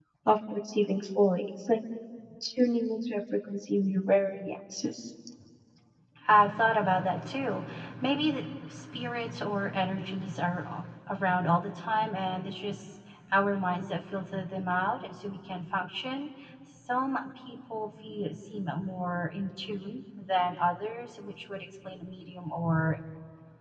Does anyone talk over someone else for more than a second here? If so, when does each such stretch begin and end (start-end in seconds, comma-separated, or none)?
none